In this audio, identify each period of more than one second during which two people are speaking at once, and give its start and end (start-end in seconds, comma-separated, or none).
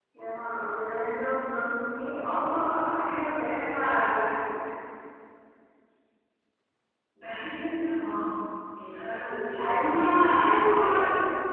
9.6-10.9